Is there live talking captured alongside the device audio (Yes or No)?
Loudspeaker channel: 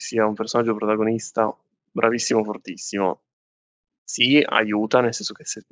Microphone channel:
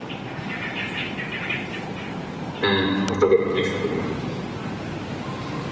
Yes